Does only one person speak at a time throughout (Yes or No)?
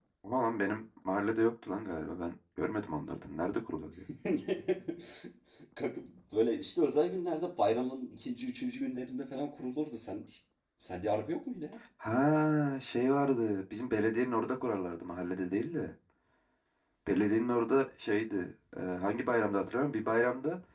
Yes